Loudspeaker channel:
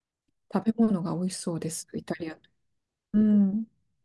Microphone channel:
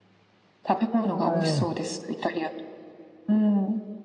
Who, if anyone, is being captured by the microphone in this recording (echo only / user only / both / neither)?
both